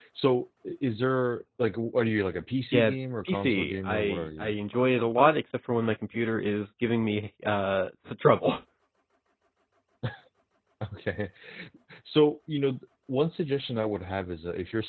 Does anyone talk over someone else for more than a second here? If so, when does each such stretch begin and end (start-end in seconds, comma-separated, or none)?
3.2-4.5